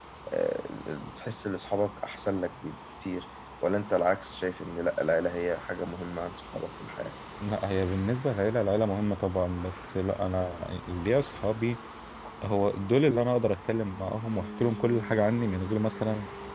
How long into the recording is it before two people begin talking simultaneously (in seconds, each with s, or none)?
none